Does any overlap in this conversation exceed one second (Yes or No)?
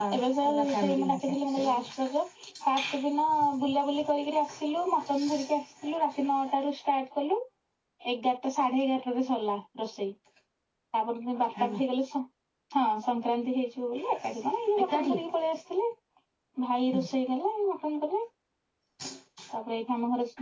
Yes